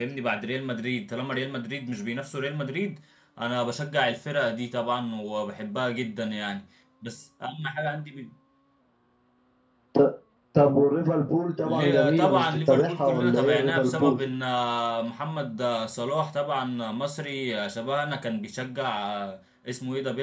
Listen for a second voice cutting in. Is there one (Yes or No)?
Yes